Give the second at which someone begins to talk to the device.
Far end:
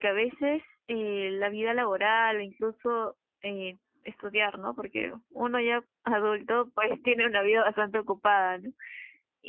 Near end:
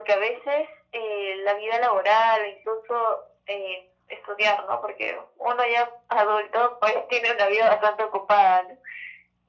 none

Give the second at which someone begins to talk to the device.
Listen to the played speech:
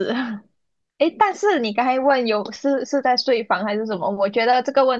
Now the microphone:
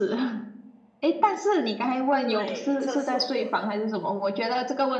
2.2 s

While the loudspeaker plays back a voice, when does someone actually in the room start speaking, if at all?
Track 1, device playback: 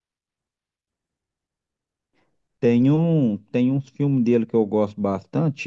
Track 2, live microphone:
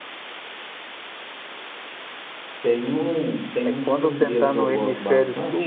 3.6 s

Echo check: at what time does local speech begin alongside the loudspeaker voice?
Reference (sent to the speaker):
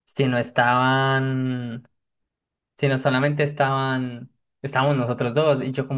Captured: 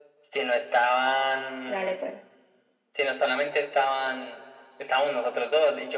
1.7 s

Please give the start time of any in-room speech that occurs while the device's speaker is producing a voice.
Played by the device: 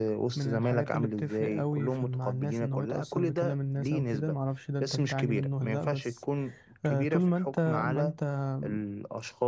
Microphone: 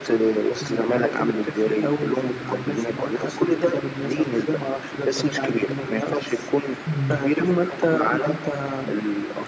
6.9 s

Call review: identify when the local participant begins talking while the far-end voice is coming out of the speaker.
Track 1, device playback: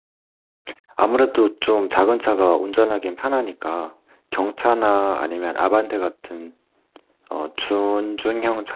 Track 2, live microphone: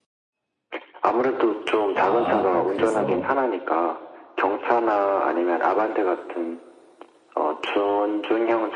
1.9 s

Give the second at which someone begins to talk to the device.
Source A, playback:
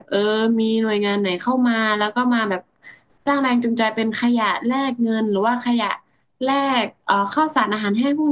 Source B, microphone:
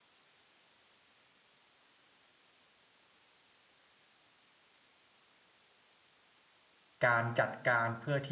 7.0 s

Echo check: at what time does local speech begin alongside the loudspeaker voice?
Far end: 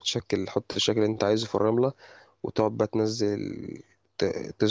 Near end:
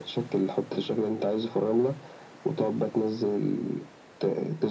none

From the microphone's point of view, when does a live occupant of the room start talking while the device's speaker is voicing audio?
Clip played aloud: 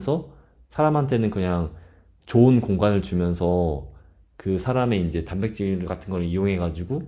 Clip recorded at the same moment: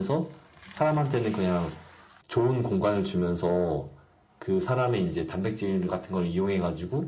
none

